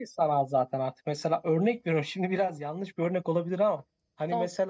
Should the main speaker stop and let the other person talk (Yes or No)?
No